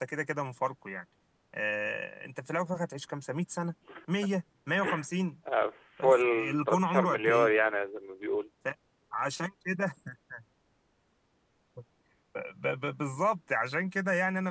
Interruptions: present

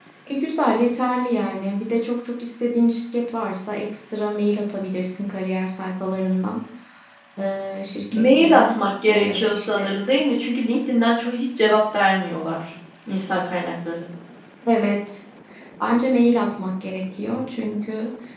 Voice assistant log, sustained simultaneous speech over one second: present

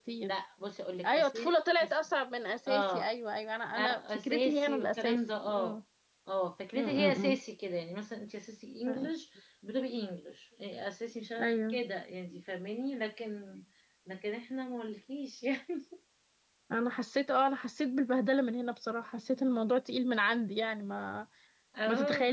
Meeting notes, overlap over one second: present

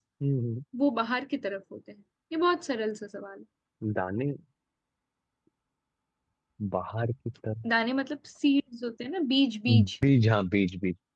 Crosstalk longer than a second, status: none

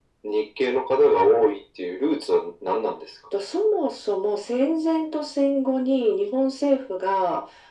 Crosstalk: none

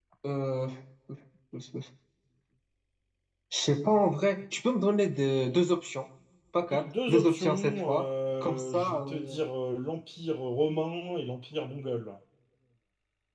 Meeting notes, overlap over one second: present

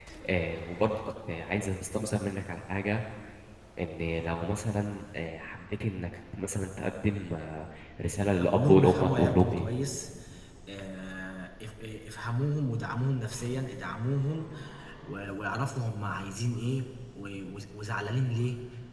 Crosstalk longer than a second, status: present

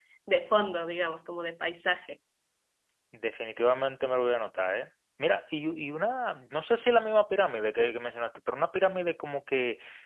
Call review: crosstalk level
none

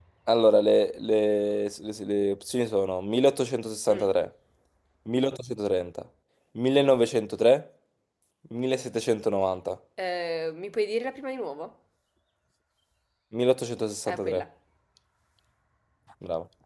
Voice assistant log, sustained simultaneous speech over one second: none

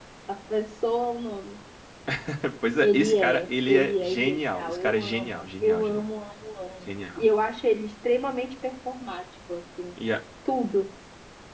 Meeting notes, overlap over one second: present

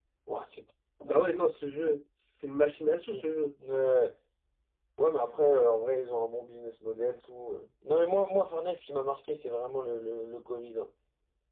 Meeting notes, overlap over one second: none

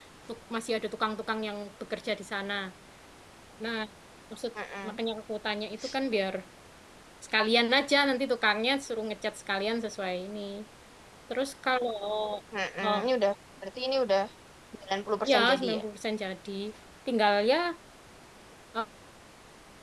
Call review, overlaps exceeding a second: none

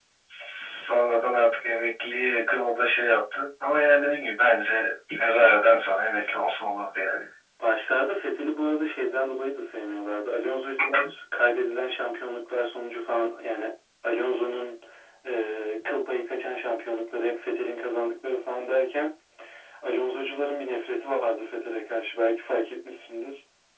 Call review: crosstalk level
none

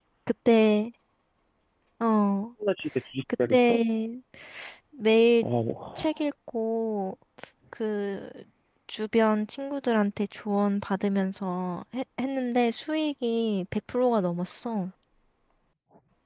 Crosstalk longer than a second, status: none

